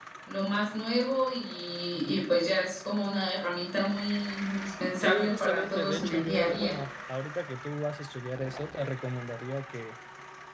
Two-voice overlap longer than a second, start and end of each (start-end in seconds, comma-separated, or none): 5.0-6.7